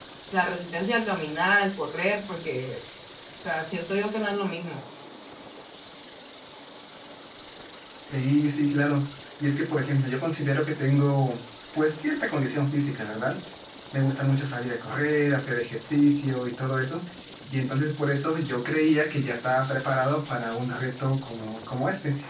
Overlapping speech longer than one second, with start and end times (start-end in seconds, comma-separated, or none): none